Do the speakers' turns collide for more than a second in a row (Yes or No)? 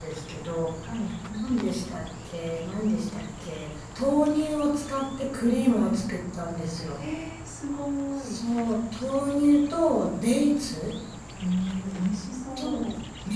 No